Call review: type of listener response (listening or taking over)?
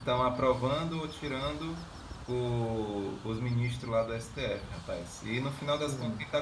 listening